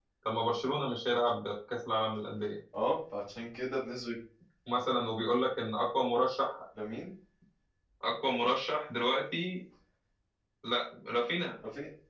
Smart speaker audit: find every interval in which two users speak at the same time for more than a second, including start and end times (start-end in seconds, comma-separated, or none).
none